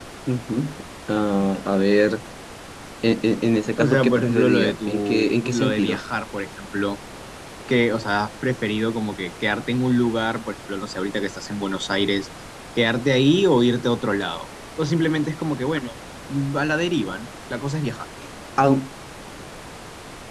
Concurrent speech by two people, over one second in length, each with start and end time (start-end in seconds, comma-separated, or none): 3.8-6.0